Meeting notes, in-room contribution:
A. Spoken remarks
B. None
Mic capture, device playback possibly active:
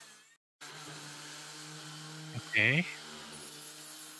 A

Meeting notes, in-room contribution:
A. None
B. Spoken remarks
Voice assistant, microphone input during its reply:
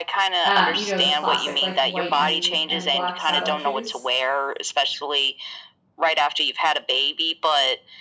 B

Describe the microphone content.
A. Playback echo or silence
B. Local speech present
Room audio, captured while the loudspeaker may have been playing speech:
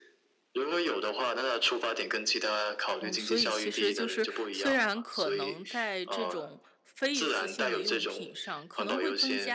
B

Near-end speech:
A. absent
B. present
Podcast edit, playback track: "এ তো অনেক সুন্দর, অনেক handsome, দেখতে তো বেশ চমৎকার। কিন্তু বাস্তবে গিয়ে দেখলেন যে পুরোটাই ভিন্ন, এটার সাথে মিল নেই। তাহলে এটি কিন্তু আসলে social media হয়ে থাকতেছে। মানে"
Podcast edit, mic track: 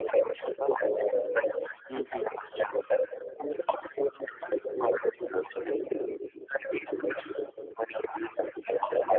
B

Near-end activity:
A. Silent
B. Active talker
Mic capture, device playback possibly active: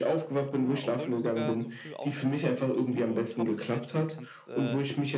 B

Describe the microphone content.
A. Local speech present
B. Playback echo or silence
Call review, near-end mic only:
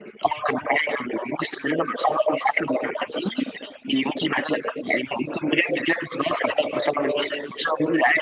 B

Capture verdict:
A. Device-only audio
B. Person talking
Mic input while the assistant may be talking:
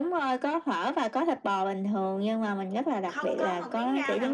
B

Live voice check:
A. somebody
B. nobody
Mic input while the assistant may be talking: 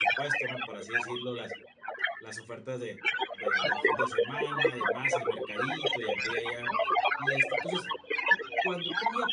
A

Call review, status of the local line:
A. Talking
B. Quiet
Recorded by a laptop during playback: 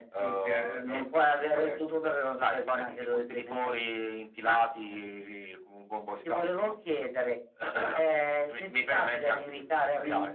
B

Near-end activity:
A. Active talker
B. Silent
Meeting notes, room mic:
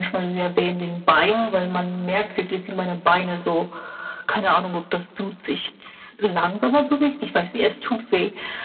B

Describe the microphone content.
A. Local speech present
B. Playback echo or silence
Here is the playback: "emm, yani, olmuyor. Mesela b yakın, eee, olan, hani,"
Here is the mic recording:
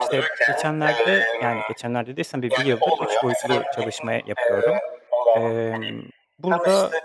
A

